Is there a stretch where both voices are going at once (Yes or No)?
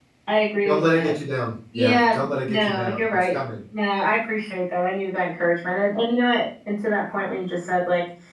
Yes